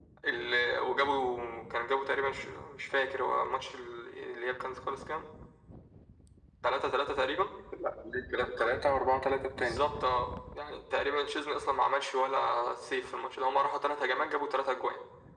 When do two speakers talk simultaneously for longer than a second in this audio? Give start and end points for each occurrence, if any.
none

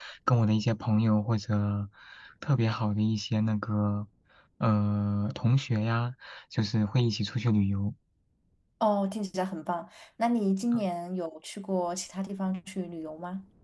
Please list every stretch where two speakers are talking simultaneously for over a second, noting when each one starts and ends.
none

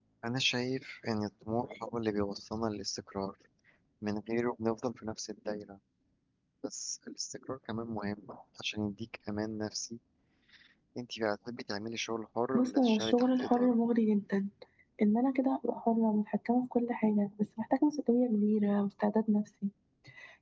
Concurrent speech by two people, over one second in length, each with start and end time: 12.5-13.8

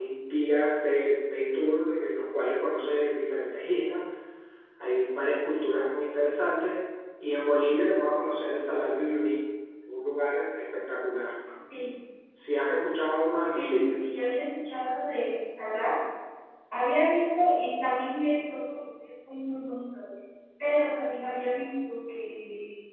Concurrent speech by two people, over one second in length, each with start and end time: none

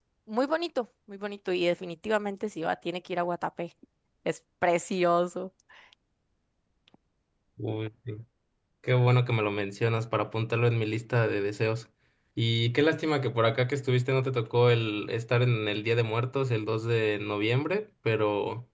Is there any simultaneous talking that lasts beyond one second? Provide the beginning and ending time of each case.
none

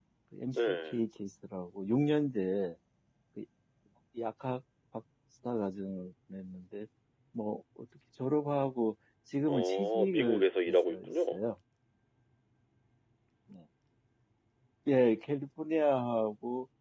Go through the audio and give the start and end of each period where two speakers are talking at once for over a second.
9.5-11.4

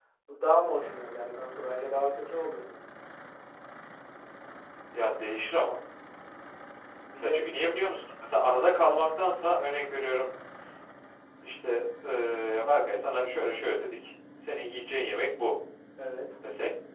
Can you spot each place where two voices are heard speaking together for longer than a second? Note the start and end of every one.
none

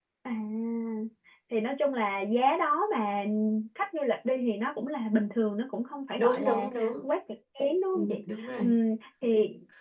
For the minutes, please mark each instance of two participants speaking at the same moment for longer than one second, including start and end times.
none

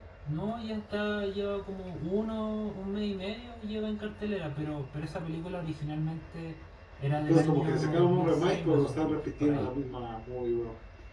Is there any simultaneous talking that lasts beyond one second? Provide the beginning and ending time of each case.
7.3-9.7

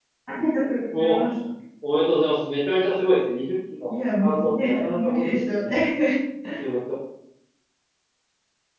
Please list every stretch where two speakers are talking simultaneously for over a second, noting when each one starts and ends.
3.9-5.6

